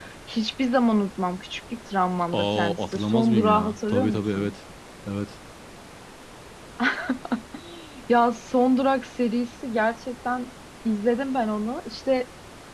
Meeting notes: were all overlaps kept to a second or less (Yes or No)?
No